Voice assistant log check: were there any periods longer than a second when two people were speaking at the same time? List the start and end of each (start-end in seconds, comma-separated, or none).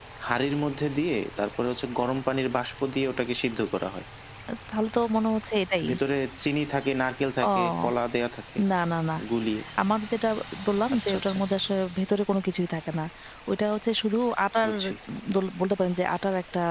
none